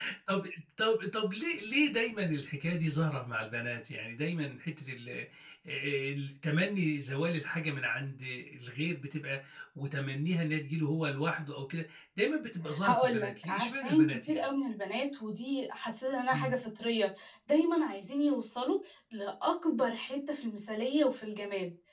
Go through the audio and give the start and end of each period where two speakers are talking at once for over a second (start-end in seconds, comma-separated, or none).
12.8-14.5